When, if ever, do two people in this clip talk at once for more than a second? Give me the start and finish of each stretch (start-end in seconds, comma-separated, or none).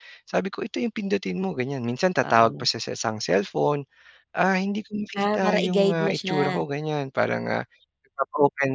5.2-6.6